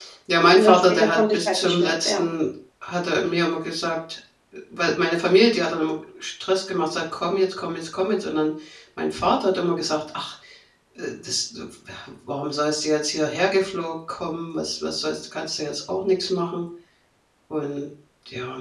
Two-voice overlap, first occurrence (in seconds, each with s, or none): 0.5 s